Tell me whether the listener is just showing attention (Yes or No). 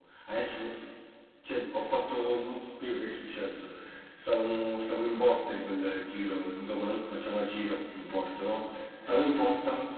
Yes